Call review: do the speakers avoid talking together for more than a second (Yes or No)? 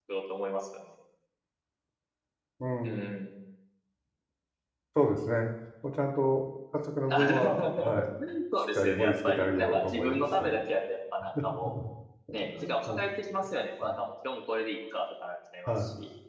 No